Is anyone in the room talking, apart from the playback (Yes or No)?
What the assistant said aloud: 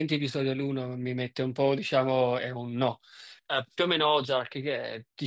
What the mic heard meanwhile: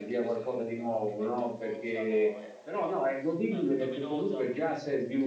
Yes